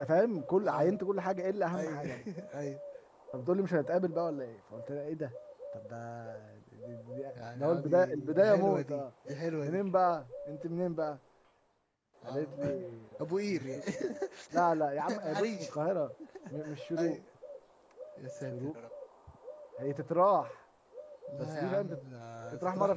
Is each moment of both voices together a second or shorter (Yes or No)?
No